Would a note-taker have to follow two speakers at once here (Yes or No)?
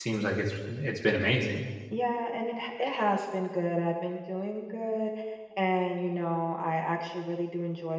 No